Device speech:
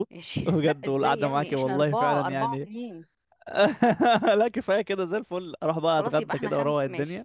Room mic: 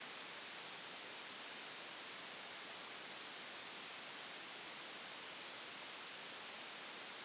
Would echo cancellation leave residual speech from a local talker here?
No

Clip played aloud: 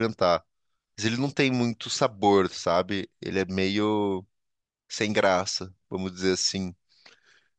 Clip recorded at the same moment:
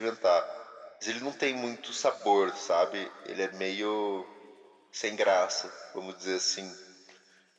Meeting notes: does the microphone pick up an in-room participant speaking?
No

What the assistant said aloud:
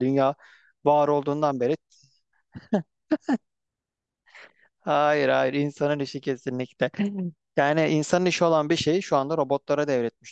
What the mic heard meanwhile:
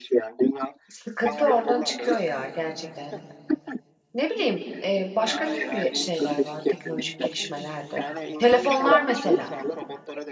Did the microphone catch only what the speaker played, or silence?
No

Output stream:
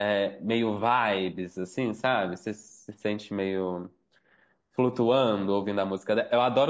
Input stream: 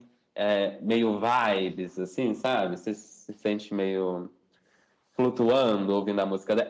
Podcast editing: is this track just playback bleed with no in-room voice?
Yes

